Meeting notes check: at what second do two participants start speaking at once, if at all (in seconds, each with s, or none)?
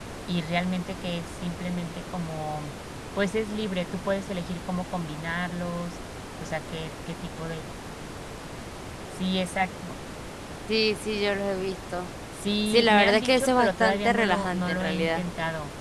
12.7 s